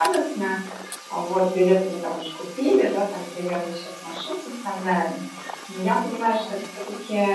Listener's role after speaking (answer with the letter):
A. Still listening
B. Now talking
A